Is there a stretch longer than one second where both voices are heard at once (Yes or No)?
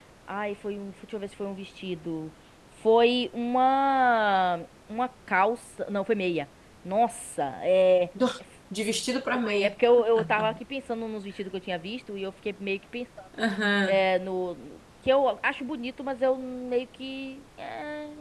No